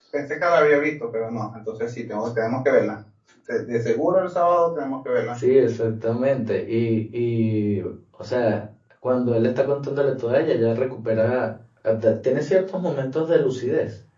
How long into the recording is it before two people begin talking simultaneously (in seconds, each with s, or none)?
none